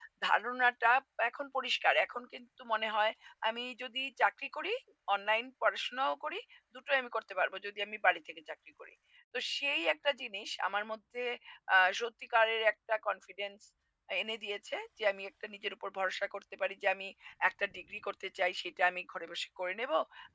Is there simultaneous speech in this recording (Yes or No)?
No